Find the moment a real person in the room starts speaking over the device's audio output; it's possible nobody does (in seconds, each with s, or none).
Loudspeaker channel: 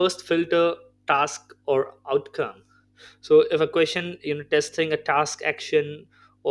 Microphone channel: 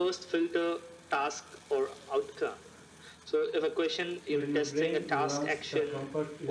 4.3 s